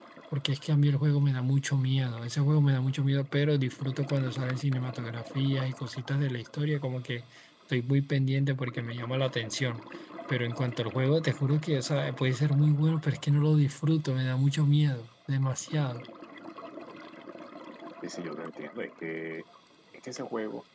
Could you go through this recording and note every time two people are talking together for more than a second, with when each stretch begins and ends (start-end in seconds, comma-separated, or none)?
none